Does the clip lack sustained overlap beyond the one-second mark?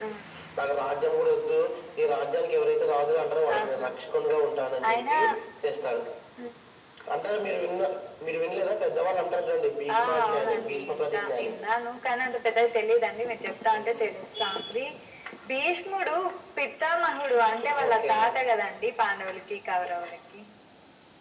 No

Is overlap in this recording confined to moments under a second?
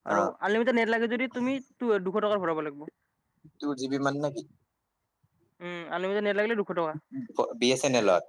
Yes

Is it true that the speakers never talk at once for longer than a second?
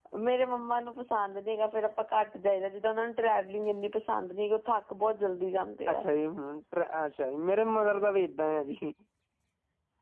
Yes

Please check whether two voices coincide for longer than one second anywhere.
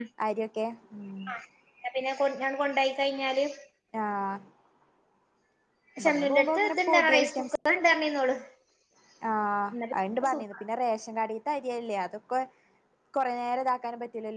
Yes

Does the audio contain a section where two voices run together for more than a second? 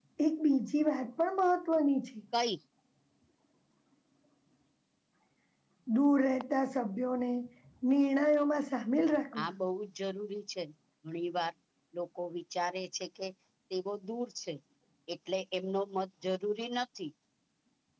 No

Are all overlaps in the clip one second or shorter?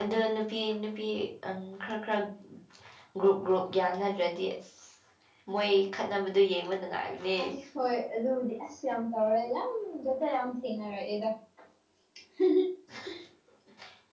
Yes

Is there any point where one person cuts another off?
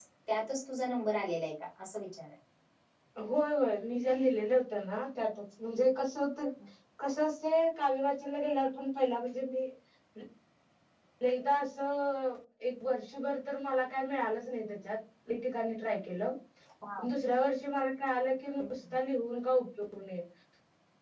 No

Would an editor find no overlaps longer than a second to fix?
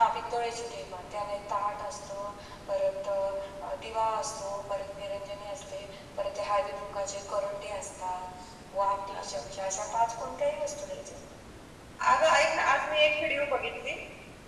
Yes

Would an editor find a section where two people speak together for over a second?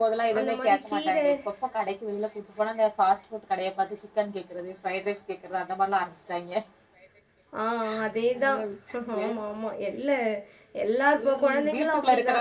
Yes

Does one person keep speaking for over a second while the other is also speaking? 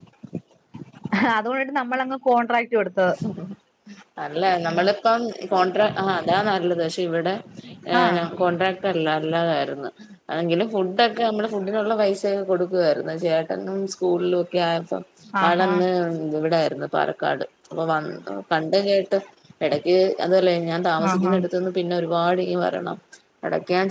No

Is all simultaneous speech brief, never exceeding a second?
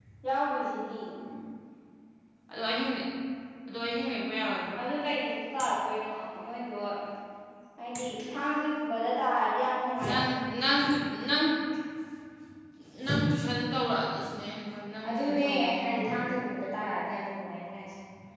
No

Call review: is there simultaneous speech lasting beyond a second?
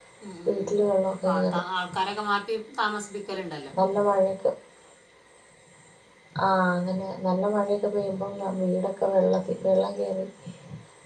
No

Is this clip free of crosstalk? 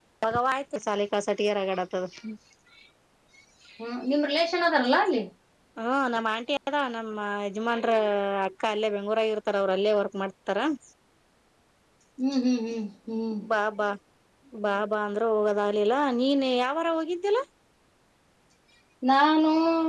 Yes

